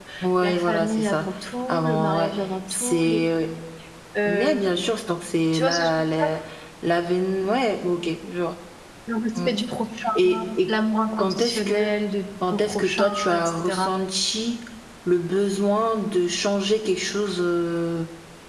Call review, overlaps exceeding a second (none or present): present